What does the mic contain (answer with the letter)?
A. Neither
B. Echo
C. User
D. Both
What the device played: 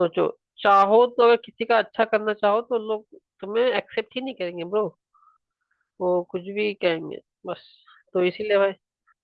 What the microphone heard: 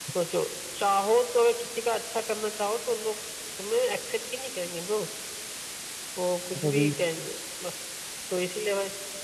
D